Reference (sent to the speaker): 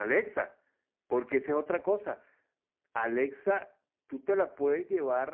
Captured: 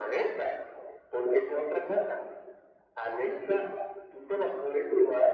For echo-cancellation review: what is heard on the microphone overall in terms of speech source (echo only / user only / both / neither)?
echo only